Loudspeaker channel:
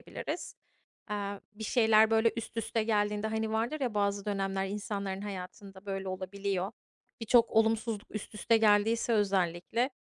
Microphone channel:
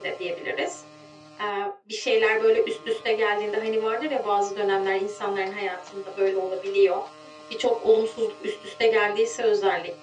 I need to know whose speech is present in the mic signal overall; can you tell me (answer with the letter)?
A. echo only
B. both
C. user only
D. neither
A